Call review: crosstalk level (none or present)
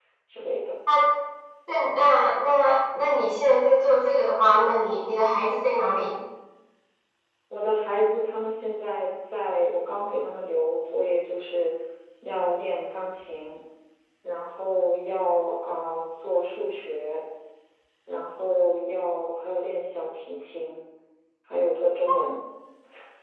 none